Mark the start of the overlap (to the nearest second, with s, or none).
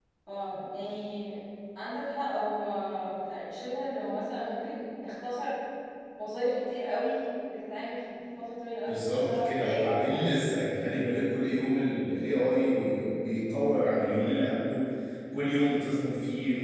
9 s